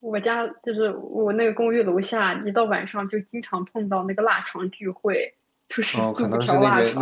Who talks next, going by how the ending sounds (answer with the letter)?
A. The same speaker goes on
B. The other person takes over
B